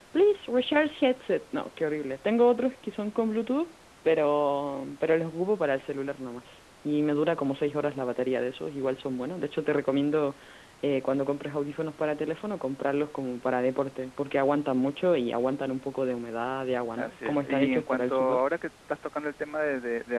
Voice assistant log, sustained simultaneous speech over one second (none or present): present